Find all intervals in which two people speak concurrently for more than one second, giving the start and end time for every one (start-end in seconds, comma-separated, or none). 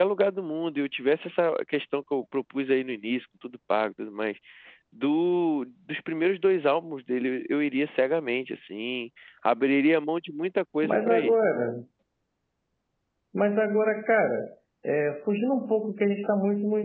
none